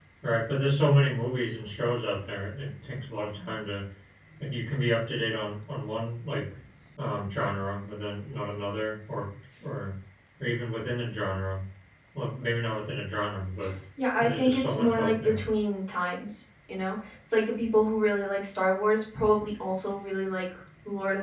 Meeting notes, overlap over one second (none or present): present